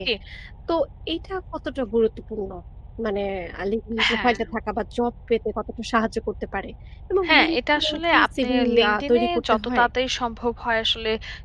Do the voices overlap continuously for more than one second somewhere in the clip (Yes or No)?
Yes